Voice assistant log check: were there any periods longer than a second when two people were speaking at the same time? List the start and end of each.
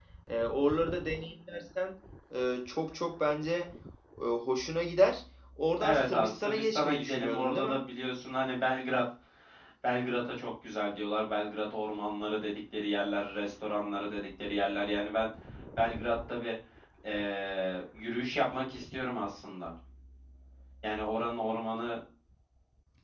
5.8-7.8

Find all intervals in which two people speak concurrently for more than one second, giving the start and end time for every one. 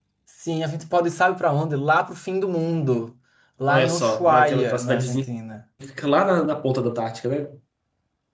3.7-5.2

